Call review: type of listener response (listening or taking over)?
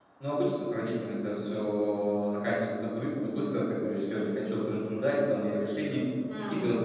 listening